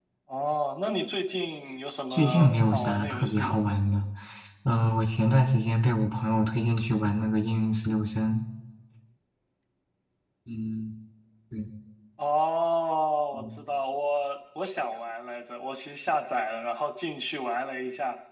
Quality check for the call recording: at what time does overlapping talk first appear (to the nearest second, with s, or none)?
2 s